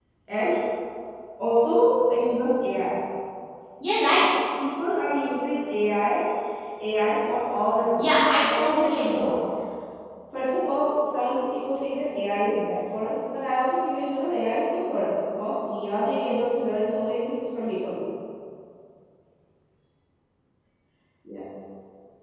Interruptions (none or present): present